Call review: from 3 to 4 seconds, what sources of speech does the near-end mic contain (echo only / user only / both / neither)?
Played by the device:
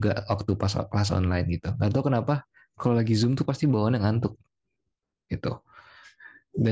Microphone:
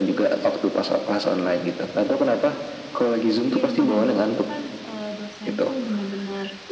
both